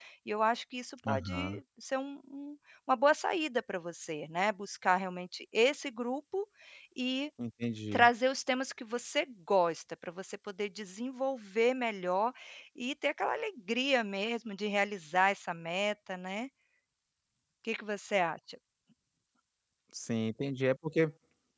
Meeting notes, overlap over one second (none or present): none